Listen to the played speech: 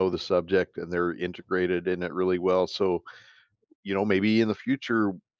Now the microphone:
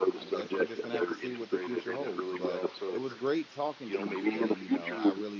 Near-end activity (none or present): present